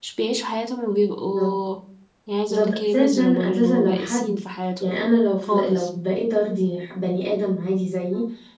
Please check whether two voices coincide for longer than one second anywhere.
Yes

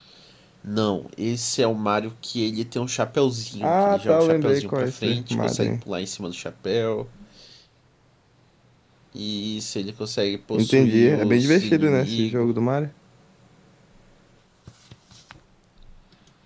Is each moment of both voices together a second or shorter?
No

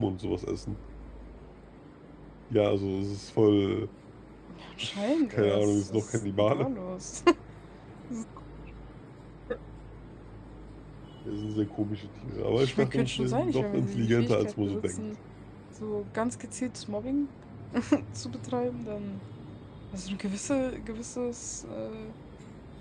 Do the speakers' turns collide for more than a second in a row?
Yes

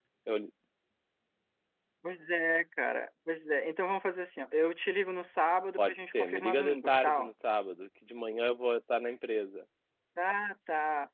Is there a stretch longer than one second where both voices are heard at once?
Yes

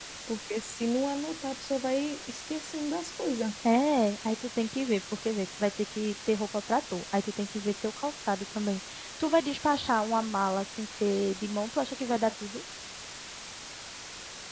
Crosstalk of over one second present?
No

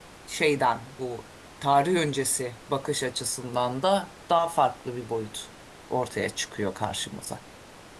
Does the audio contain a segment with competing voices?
No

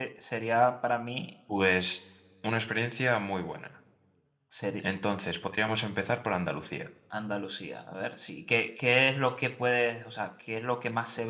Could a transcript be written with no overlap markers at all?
Yes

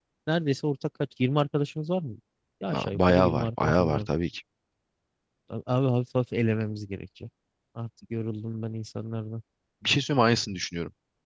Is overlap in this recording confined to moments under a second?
No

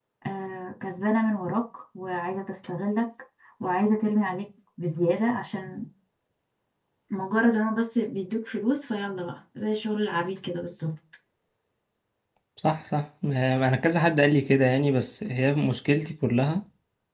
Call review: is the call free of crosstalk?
Yes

